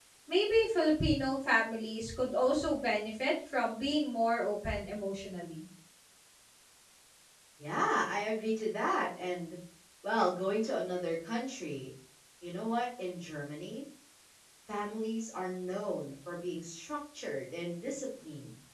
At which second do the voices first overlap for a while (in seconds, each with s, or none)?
none